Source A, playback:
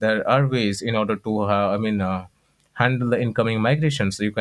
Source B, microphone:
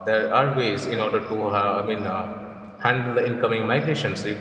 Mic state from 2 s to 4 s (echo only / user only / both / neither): echo only